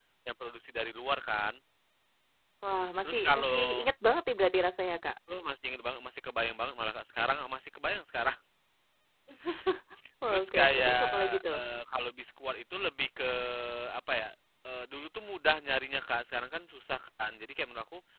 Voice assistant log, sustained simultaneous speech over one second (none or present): present